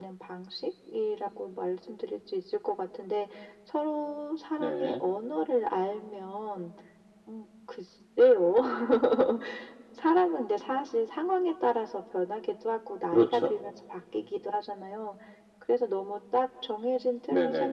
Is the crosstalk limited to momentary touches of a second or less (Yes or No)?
Yes